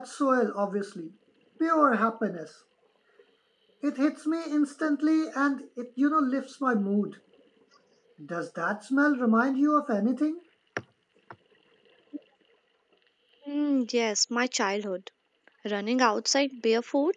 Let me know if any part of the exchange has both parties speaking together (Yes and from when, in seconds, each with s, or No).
No